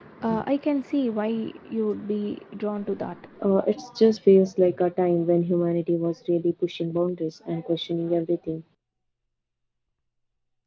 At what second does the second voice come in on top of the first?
none

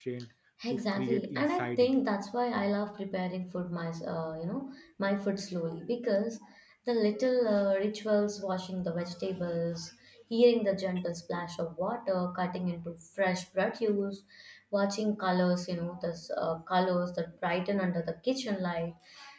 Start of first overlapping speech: 0.7 s

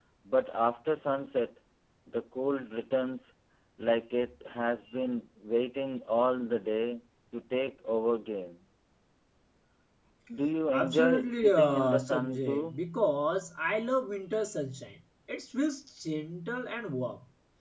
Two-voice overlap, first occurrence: 10.7 s

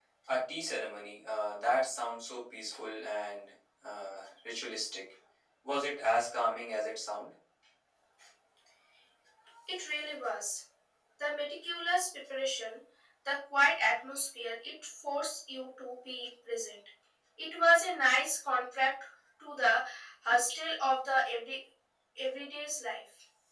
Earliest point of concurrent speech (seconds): none

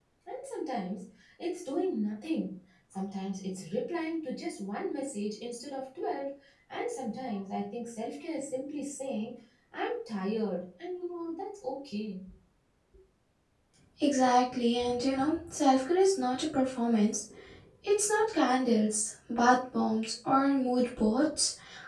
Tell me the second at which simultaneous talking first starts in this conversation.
none

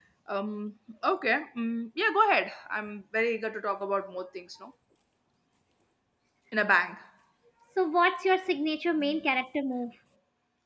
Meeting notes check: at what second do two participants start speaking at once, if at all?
none

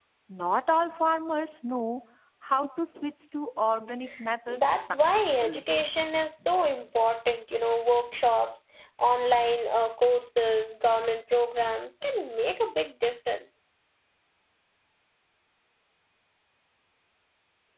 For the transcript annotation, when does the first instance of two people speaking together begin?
4.5 s

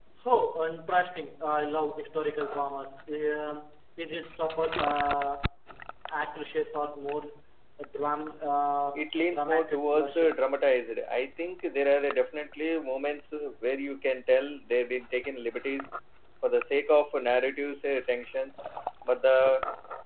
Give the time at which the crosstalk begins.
8.9 s

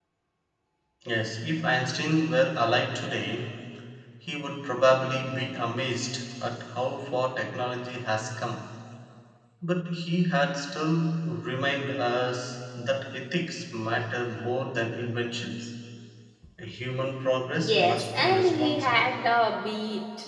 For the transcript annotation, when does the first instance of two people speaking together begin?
17.6 s

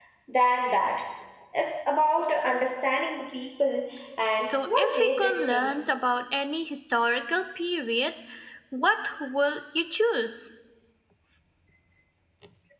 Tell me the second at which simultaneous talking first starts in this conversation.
4.4 s

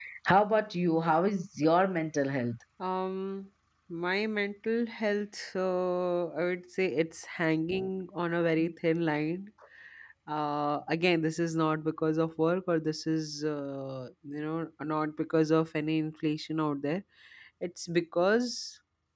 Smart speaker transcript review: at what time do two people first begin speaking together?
none

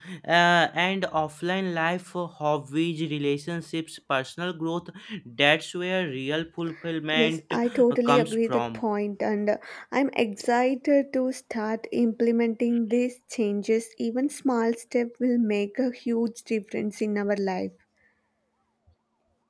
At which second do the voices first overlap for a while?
7.1 s

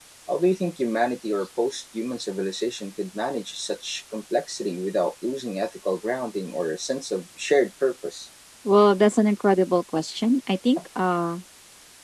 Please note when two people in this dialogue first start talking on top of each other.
none

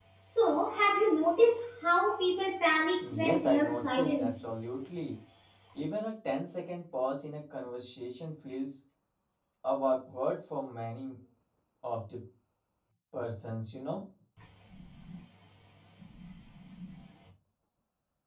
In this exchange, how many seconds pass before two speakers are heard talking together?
3.0 s

